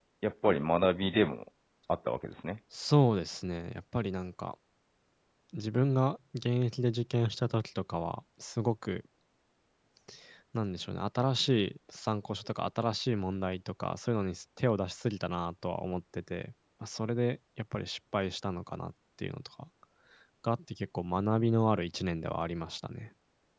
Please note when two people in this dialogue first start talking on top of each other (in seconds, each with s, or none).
none